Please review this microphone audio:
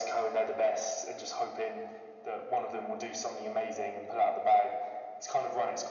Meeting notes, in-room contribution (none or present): none